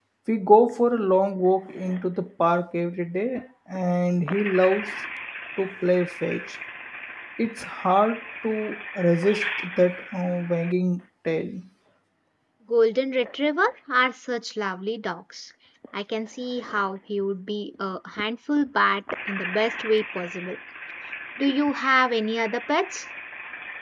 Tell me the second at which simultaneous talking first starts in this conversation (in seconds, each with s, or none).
none